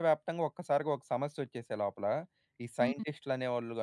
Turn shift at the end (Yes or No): No